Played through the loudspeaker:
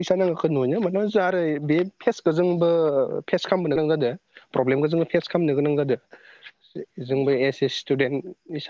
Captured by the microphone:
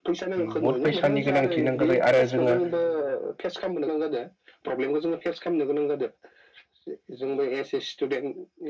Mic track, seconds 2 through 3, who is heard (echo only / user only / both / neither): both